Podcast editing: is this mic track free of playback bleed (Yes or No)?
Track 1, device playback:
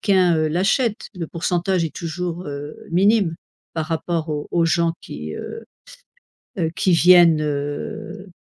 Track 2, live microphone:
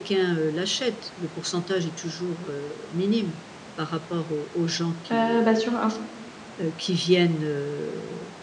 No